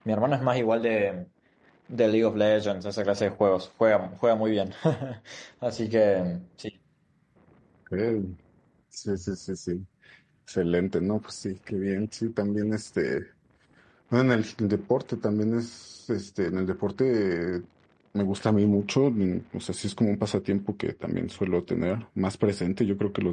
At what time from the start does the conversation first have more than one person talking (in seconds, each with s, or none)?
none